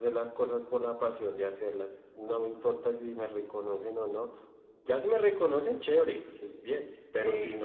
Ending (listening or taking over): listening